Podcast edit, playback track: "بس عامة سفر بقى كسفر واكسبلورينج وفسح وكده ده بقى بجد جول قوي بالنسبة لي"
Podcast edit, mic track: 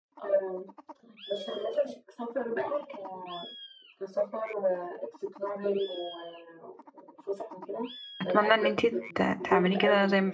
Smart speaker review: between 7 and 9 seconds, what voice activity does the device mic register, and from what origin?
both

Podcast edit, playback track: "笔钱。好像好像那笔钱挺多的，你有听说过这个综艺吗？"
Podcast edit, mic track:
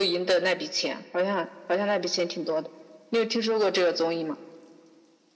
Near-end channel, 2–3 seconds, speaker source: echo only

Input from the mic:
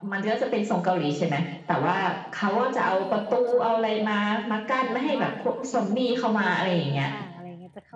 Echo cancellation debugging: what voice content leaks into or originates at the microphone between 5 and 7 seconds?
both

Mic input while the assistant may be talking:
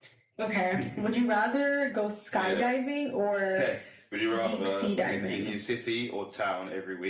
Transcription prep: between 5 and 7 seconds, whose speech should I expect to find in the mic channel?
echo only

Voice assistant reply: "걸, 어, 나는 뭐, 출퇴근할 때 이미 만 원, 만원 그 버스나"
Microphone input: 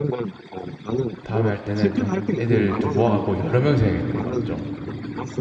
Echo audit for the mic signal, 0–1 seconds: echo only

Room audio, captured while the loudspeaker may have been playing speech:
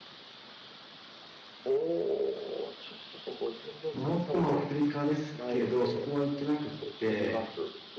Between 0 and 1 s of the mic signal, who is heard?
neither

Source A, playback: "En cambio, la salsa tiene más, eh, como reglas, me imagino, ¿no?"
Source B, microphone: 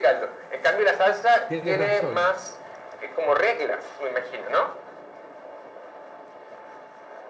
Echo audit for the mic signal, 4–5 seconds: echo only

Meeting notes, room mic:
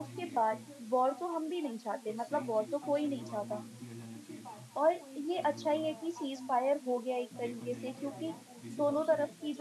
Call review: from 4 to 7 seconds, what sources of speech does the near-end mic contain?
both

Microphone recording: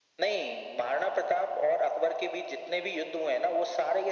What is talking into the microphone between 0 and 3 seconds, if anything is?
echo only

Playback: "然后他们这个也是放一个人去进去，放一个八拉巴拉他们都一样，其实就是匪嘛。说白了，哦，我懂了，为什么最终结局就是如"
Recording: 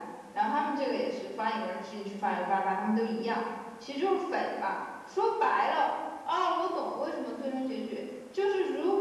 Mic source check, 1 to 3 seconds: echo only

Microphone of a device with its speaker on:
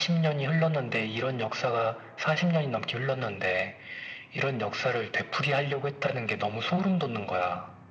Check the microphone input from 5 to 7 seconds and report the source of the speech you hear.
echo only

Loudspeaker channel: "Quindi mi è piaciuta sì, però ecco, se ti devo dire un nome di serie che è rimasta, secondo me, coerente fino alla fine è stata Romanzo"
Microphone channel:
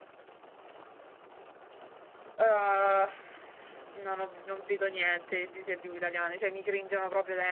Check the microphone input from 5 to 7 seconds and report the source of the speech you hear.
user only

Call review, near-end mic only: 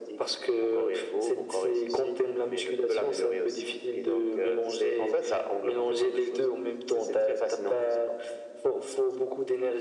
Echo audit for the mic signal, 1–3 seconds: echo only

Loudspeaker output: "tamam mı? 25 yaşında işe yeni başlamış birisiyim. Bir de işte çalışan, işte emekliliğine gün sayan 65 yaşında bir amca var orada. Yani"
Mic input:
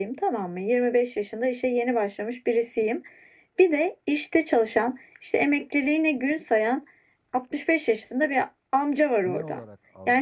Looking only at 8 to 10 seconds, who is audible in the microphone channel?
both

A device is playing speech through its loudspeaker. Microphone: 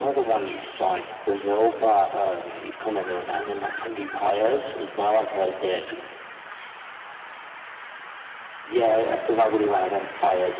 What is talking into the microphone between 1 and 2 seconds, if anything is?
echo only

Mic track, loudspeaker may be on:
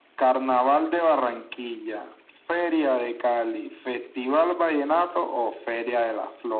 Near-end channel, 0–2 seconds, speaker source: echo only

